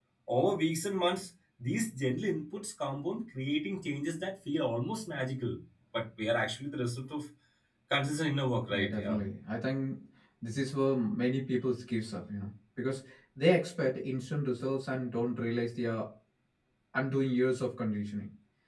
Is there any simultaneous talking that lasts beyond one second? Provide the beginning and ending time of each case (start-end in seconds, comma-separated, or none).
none